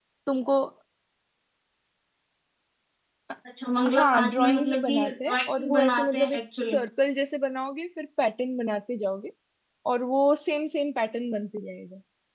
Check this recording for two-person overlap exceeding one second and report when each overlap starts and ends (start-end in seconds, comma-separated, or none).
3.9-6.8